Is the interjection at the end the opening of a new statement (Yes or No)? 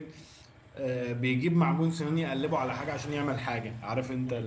Yes